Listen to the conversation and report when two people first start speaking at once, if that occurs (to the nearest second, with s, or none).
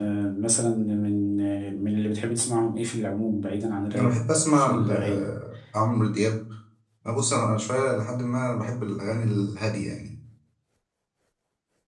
4 s